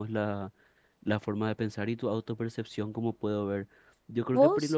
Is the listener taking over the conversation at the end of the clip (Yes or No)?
No